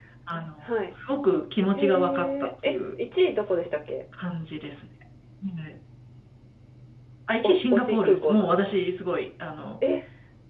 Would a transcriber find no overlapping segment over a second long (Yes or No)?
No